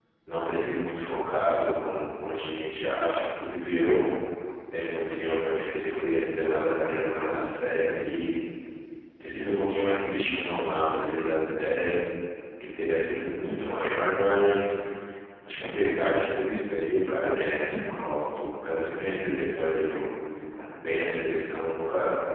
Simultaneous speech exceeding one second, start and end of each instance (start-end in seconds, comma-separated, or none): none